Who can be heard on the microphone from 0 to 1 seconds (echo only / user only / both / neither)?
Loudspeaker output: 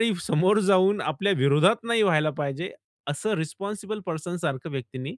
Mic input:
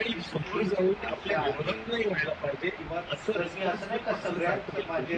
both